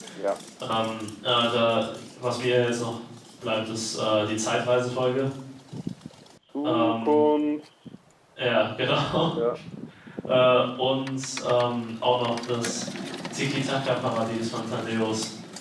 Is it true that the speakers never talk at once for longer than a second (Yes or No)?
Yes